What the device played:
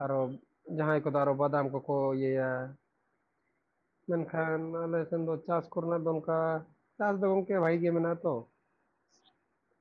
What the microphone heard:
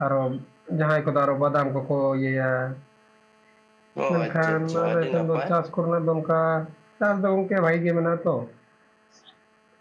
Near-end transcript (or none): ᱚ ᱟᱪᱪᱷᱟ ᱟᱪᱪᱷᱟ ᱟᱹᱰᱤ ᱱᱟᱯᱟᱭ